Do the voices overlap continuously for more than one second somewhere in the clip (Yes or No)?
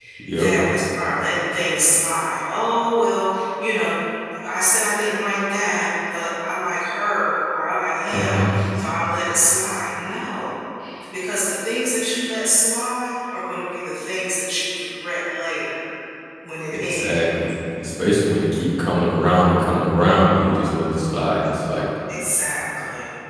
No